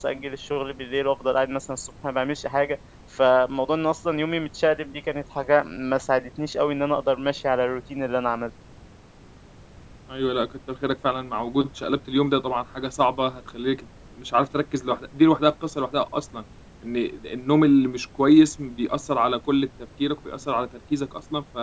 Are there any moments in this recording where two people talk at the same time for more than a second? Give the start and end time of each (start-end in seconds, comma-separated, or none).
none